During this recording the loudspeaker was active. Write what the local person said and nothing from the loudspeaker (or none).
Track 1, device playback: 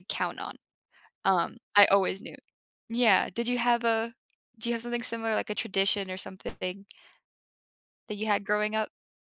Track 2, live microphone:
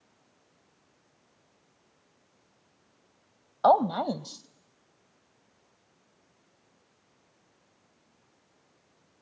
oh, nice.